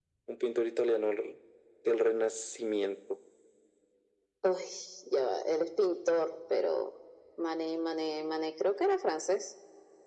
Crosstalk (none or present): none